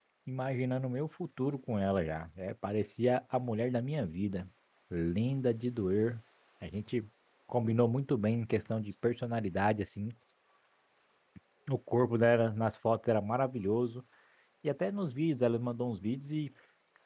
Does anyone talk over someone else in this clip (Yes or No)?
No